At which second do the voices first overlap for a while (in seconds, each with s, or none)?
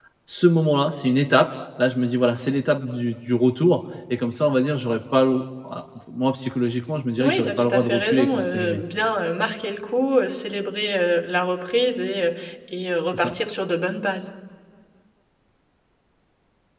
7.2 s